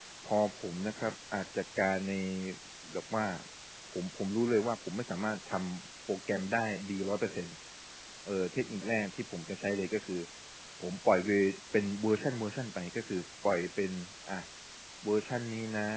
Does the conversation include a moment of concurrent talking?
No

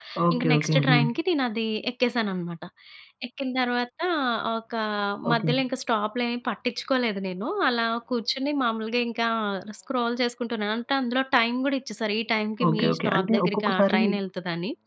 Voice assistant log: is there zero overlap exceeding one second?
No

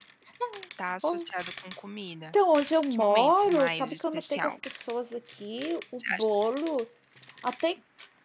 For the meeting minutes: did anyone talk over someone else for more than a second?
Yes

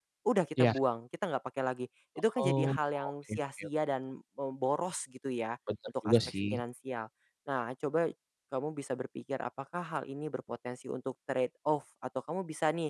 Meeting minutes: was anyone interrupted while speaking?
Yes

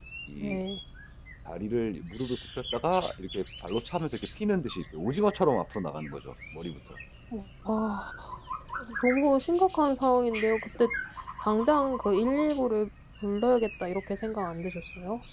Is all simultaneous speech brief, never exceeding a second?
Yes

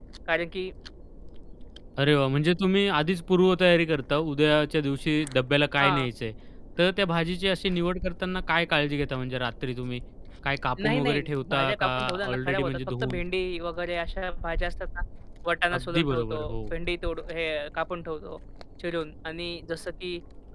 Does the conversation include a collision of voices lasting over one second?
Yes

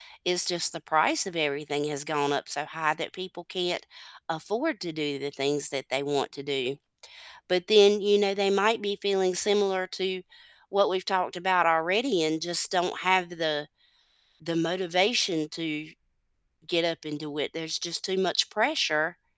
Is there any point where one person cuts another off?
No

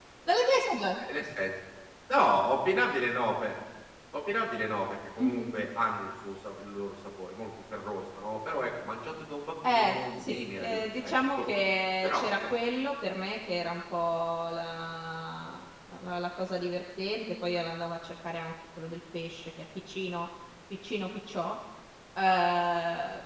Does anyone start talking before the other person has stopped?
Yes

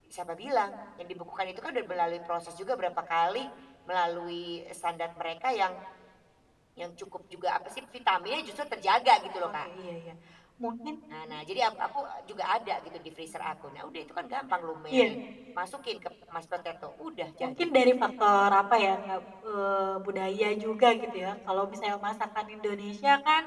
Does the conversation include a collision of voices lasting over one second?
No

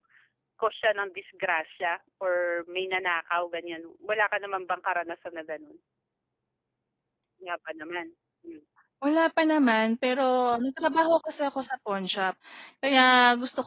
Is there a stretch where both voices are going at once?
No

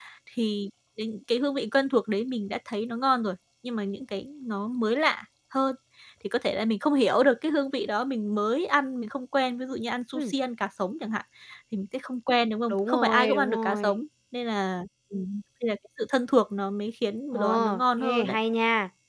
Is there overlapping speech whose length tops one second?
Yes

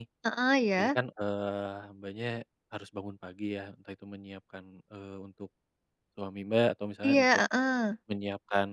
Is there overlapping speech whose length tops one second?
No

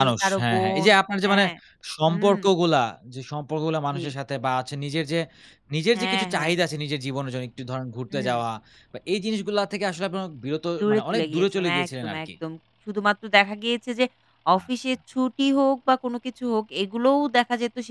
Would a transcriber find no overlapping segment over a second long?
No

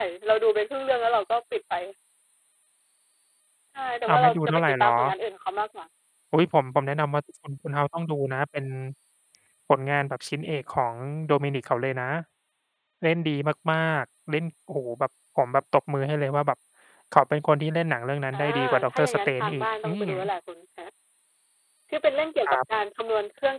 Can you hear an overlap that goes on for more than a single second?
Yes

